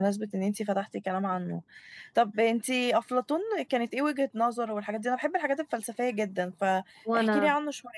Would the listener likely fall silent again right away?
Yes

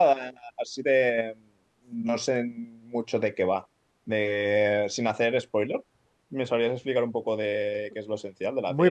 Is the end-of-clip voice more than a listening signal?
Yes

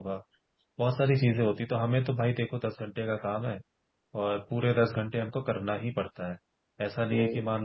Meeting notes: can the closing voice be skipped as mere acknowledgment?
Yes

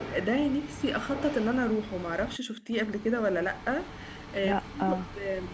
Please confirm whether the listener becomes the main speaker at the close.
No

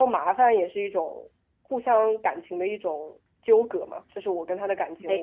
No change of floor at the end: Yes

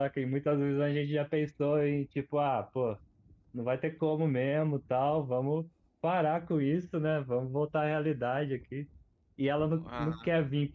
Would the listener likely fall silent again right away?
Yes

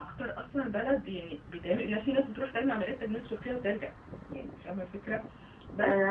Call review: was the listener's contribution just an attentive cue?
Yes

